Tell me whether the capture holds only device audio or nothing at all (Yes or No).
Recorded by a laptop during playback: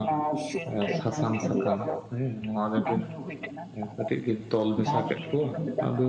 No